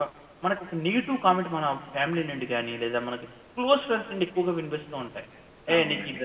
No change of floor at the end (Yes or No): Yes